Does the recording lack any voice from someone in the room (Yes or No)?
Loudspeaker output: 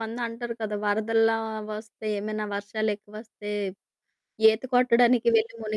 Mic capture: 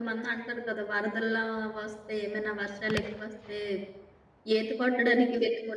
Yes